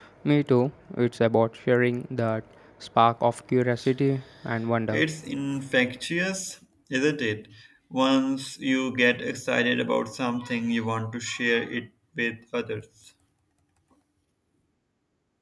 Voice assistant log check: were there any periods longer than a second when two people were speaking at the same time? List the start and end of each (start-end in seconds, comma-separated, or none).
none